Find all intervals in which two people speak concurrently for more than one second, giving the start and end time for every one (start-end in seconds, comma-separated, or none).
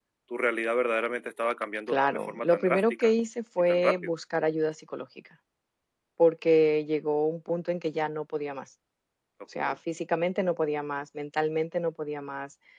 1.9-3.1